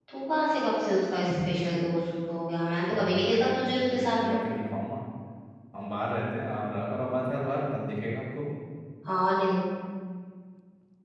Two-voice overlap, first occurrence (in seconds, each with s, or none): 2.9 s